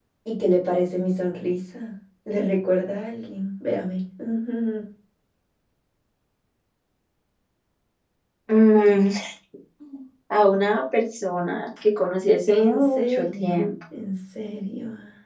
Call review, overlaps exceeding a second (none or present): present